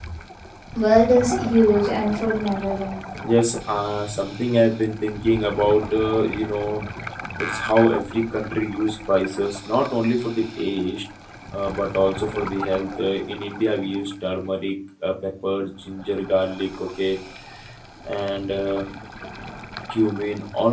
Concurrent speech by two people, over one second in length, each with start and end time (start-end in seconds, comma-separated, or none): none